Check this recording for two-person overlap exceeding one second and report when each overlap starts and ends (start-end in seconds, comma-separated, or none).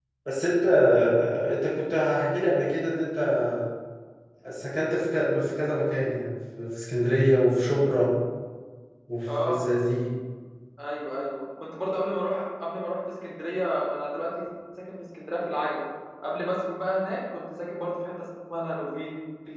none